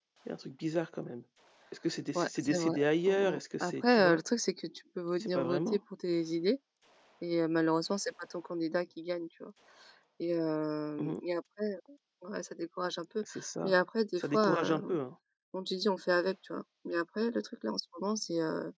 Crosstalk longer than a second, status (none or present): present